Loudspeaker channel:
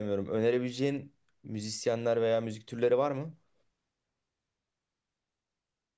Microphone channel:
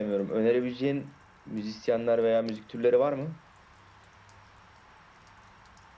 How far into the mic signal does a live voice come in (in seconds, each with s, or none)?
none